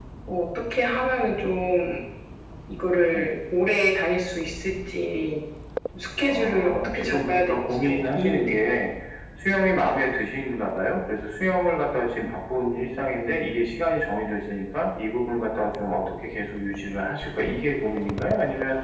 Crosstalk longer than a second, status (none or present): present